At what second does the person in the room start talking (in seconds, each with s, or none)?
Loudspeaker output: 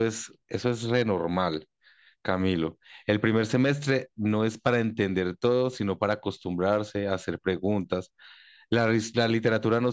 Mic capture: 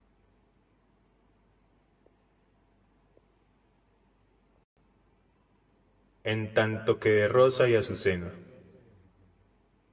6.2 s